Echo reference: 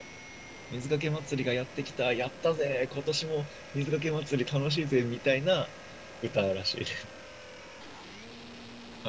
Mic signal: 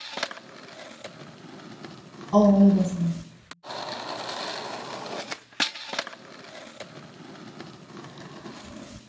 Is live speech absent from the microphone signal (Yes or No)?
No